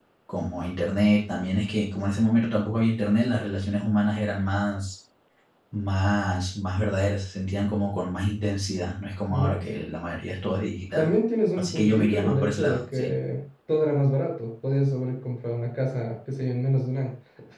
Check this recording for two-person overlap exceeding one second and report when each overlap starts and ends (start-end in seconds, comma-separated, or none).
11.5-13.1